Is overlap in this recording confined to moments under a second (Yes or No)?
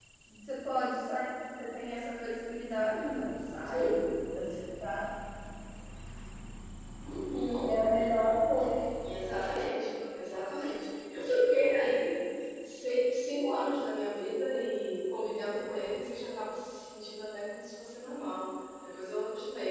Yes